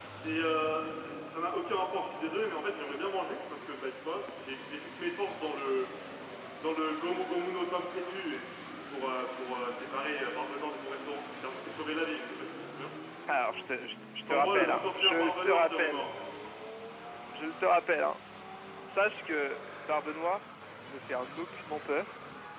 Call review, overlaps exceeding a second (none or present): present